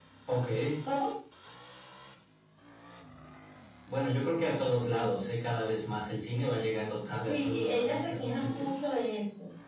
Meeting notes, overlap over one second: present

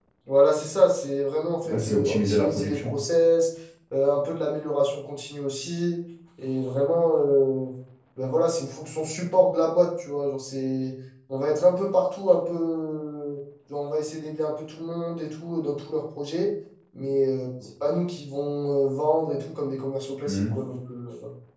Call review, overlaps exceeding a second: present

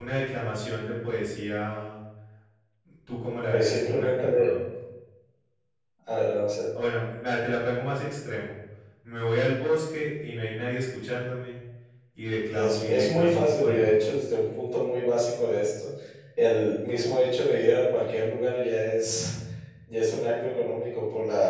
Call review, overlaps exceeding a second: present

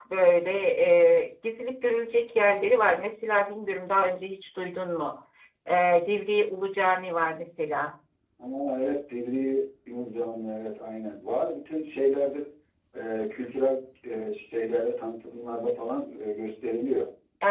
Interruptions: none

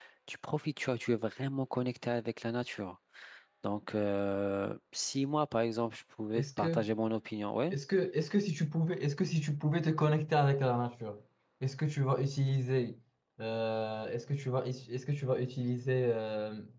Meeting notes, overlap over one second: none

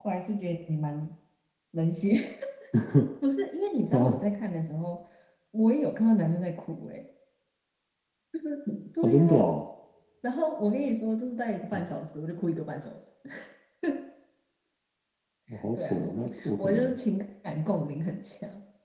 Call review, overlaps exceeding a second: present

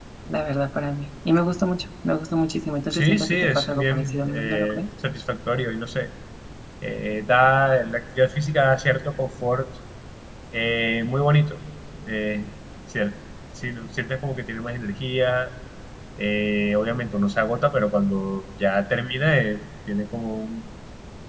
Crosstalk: present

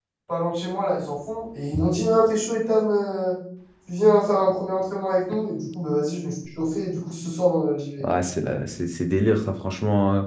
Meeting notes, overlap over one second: none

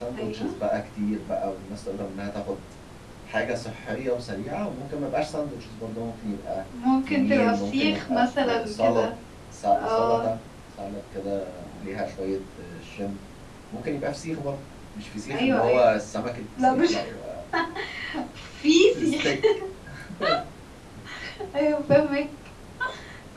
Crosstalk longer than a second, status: present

